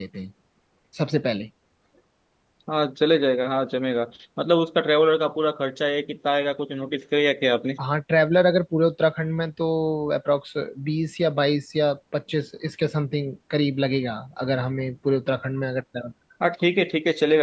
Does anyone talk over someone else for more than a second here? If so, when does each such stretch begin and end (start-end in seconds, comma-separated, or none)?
none